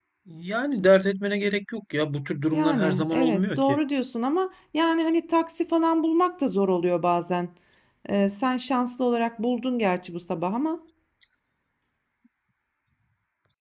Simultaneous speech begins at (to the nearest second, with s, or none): 3 s